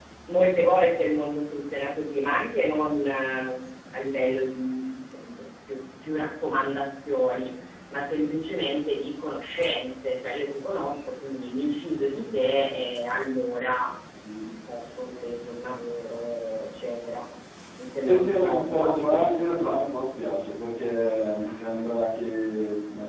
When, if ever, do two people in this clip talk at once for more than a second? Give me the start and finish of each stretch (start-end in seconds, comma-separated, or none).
18.0-19.8